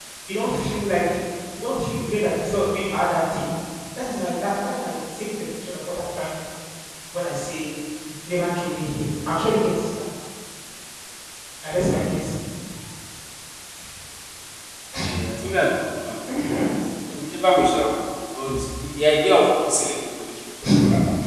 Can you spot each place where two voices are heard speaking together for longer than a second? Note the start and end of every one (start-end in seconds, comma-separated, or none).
none